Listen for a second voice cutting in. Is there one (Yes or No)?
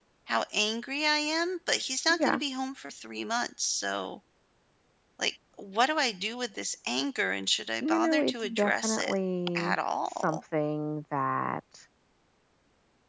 Yes